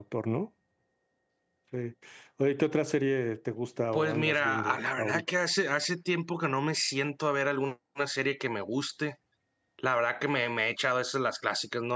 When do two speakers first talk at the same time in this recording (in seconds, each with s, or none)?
3.9 s